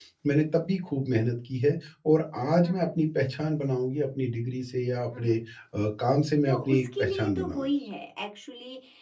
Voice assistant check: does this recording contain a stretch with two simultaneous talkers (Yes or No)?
Yes